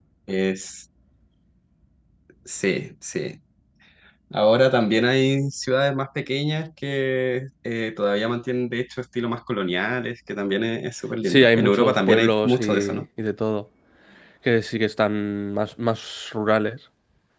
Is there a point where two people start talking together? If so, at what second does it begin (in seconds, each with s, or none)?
11.3 s